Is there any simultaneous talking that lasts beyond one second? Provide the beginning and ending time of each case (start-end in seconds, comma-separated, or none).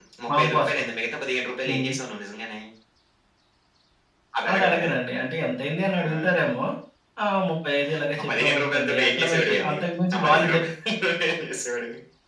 8.2-9.8